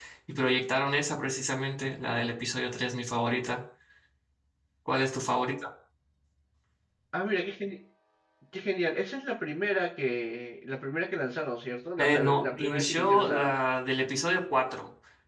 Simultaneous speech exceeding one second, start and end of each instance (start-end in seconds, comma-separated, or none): 12.0-13.5